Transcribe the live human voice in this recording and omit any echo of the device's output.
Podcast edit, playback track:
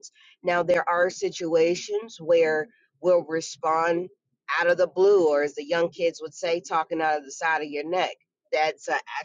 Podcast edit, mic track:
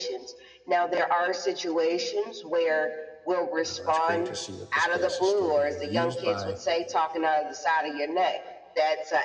Um, it's great to see that the space is still being used by

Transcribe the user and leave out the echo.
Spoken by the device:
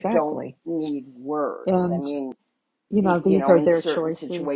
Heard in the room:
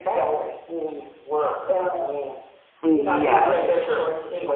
Yes.

